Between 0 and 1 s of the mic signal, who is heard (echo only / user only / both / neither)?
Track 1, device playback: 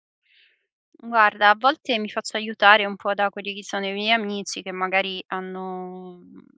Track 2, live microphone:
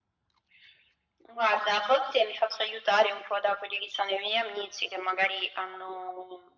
neither